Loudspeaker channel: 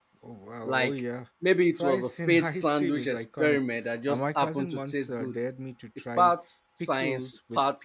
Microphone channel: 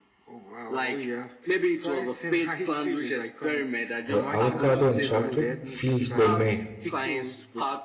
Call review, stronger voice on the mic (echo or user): user